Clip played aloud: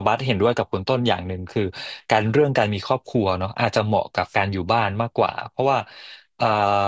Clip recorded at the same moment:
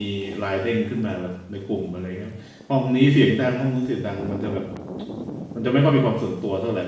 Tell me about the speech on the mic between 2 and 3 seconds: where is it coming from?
user only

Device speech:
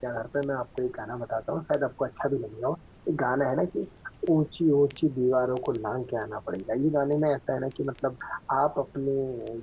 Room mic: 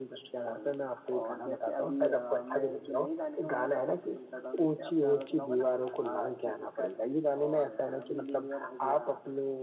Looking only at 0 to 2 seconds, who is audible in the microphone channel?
both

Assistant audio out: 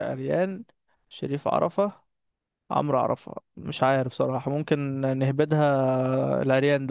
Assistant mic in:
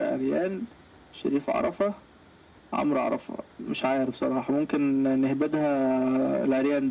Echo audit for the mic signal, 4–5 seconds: echo only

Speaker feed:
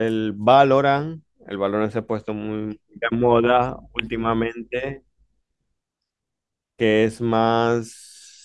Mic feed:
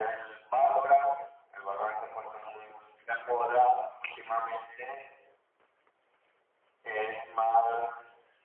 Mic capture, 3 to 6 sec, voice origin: echo only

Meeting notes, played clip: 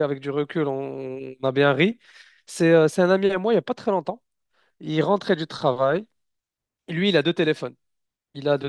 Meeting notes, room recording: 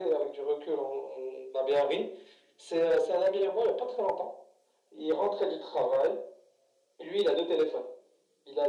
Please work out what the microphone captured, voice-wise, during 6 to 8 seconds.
echo only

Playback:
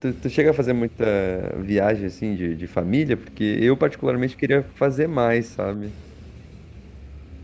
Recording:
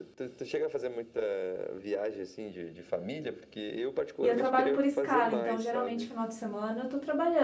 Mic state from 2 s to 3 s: echo only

